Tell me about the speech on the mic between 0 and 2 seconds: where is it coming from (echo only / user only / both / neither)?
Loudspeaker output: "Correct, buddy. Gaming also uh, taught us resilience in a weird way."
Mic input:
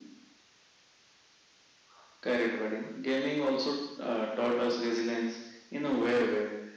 neither